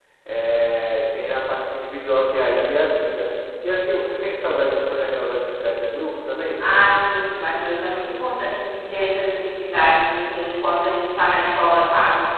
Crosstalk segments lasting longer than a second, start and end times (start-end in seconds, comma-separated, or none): none